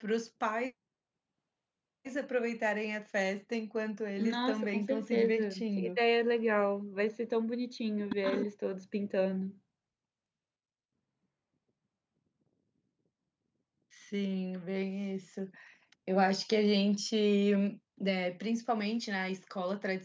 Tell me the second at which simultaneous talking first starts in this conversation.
4.2 s

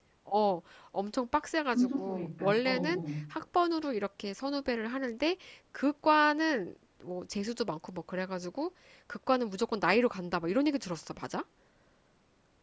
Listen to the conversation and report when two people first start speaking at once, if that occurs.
1.7 s

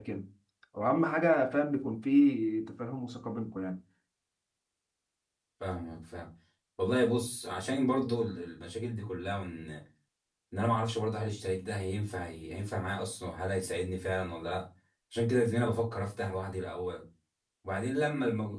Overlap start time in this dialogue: none

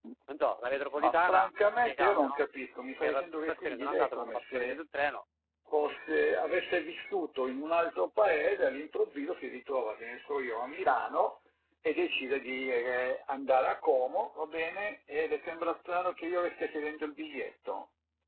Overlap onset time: 1.0 s

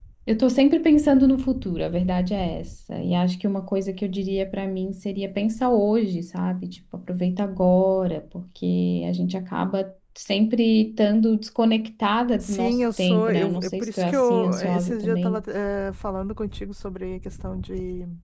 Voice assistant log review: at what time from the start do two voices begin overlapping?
12.4 s

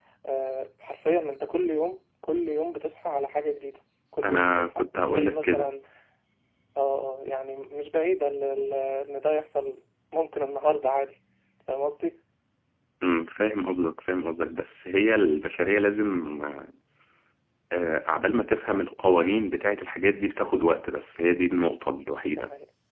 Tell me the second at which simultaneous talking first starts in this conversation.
4.2 s

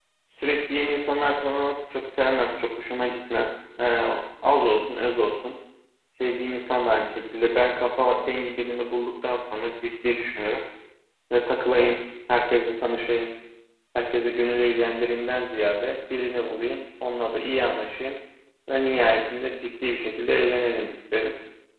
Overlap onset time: none

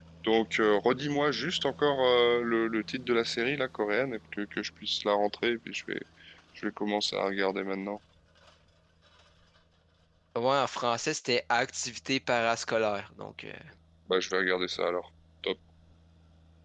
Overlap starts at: none

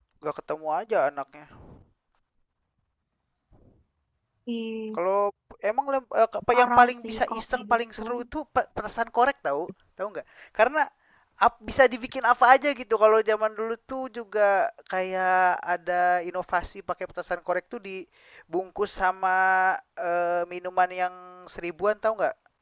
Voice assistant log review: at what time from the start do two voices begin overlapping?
6.5 s

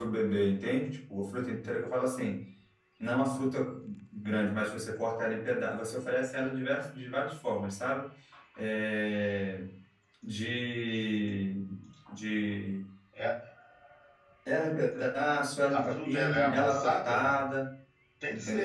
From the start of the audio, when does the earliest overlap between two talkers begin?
15.7 s

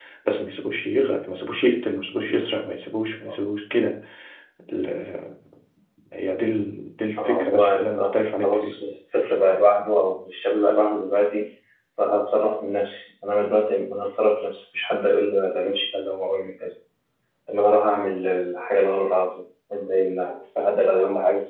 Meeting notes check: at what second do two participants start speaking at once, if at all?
7.2 s

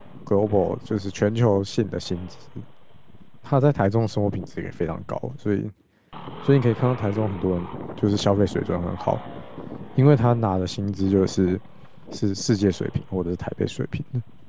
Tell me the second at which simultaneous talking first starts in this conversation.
none

